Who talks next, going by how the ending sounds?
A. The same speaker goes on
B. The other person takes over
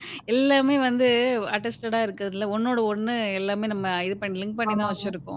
A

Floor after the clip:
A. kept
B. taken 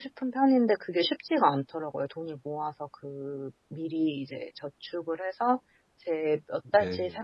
A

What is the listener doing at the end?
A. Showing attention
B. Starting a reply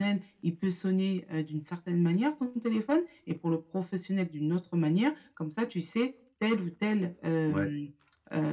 A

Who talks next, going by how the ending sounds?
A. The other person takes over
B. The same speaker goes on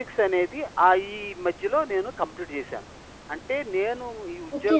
A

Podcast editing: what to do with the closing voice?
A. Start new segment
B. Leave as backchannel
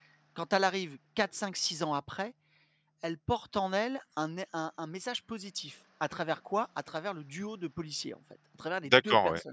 A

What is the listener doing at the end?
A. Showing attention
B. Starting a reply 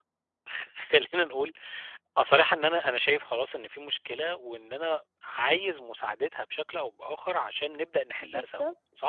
B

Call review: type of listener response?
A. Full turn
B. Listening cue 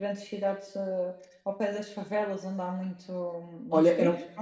A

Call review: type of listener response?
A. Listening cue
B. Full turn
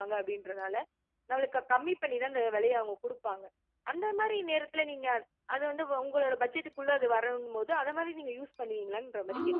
B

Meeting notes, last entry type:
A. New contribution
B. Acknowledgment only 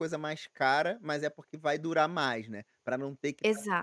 B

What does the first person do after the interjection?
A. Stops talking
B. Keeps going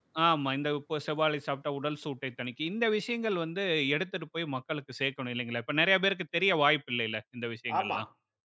A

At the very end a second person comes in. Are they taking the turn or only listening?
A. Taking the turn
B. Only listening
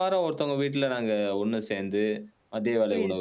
B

